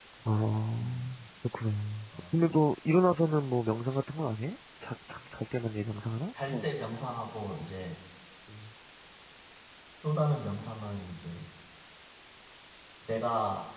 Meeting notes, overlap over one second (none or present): none